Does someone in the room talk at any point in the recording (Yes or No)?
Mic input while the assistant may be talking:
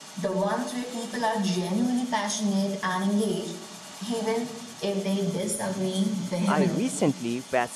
Yes